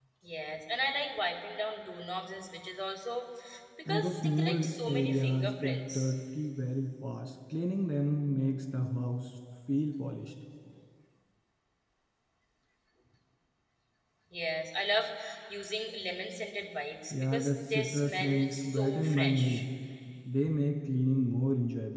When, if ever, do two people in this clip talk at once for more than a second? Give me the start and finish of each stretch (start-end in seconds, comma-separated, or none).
3.9-6.1, 17.1-19.6